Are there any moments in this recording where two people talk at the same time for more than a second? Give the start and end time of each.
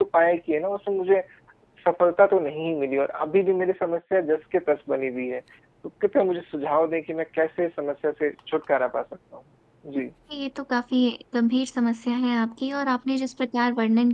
none

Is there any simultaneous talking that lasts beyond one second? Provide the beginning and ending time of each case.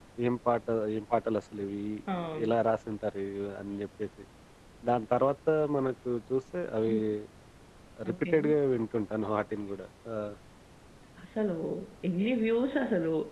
none

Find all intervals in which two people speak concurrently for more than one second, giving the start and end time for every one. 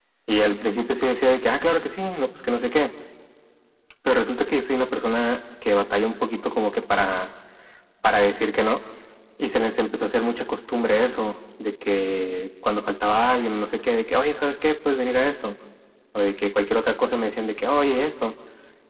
none

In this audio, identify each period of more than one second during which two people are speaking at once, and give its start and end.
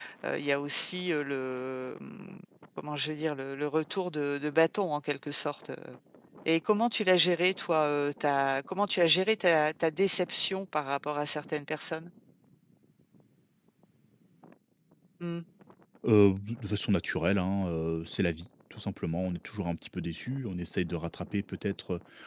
none

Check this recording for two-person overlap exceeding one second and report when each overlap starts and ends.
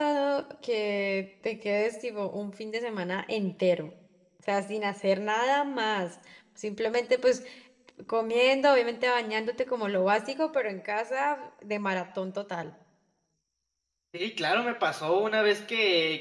none

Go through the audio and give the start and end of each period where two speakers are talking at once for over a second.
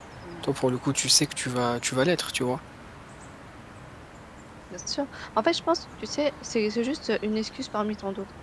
none

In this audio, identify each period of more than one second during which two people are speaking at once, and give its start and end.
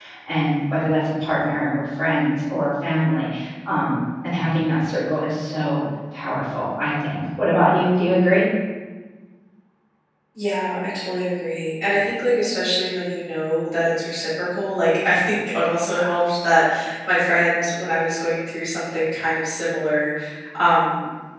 none

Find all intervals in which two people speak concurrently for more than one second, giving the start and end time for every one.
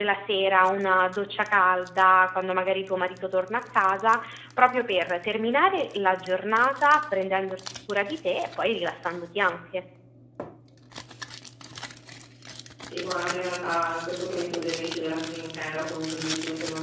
none

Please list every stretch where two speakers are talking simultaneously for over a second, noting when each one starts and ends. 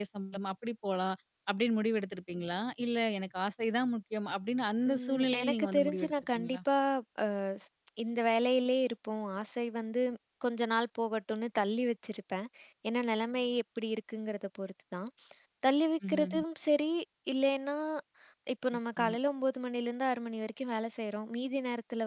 4.9-6.6

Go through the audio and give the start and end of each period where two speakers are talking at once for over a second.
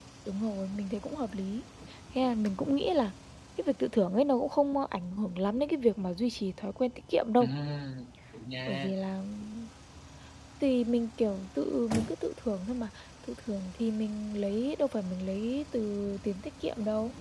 none

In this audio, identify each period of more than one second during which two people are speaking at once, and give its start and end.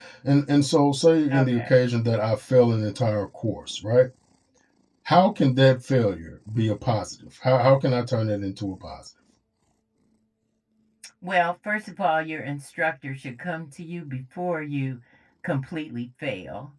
none

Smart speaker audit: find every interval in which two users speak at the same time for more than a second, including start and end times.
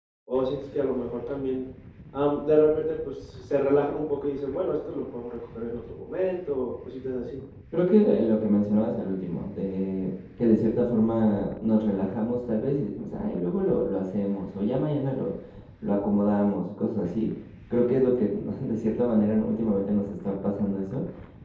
none

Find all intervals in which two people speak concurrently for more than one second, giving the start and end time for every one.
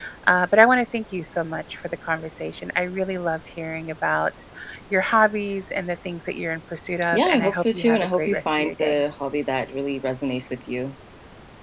7.1-9.0

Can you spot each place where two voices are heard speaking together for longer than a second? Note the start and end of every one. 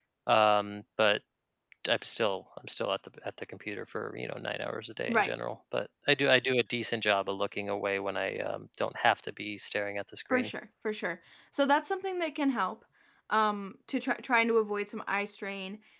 none

